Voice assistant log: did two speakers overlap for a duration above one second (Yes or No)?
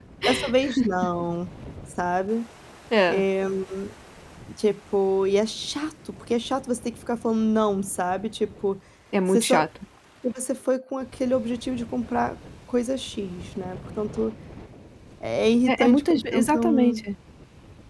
Yes